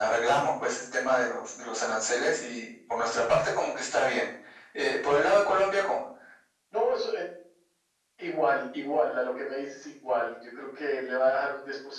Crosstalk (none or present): none